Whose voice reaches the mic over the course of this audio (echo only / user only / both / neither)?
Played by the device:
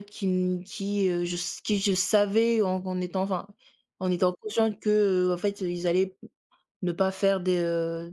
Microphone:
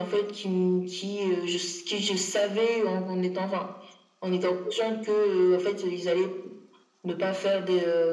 echo only